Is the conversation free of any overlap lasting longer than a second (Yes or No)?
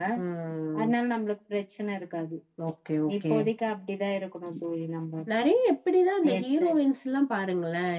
Yes